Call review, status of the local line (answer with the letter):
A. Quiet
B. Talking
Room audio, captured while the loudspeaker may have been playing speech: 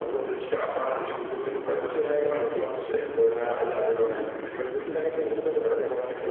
A